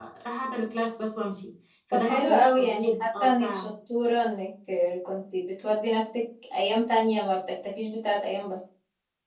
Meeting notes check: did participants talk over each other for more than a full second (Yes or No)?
Yes